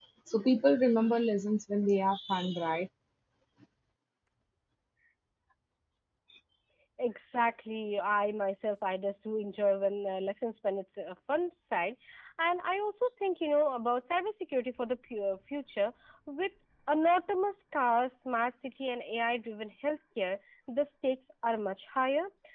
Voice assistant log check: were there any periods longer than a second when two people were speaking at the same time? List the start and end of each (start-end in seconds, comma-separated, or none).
none